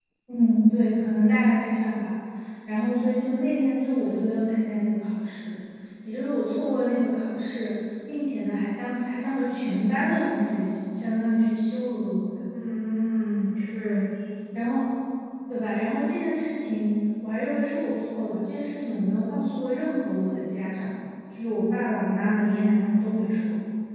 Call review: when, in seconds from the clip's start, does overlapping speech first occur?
none

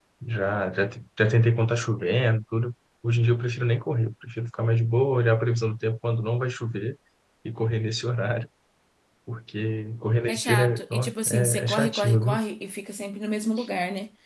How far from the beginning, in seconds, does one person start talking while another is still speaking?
10.3 s

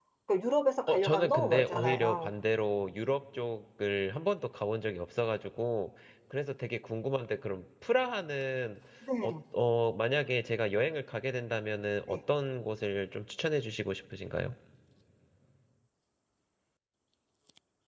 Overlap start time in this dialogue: 0.9 s

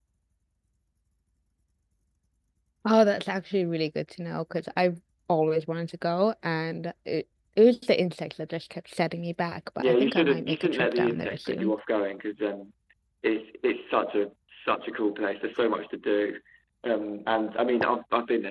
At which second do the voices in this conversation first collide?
9.8 s

